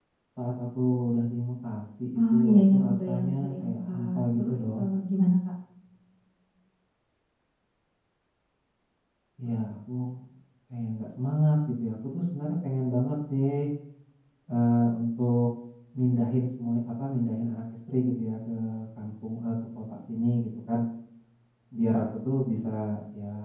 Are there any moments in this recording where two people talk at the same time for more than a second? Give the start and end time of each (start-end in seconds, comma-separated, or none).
2.3-4.8